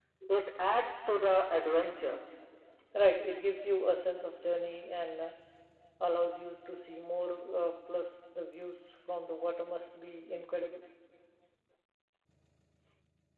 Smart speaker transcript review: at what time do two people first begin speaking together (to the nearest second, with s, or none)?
none